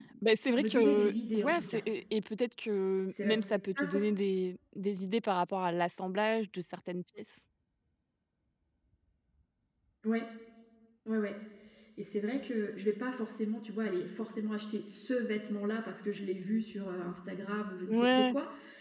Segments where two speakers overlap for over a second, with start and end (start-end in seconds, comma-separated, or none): 0.6-1.8